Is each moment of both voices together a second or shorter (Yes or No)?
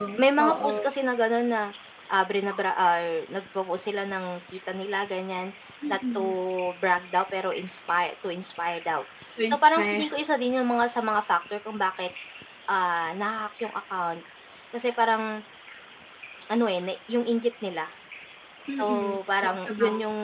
No